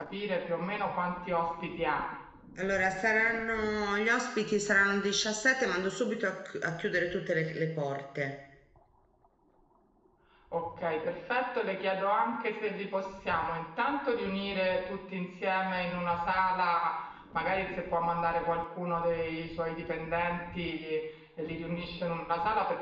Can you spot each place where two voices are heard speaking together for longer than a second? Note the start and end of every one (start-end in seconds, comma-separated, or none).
none